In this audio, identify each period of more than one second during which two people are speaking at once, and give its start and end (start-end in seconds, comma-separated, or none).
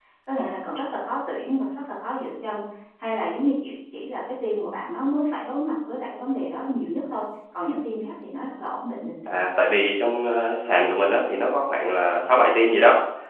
none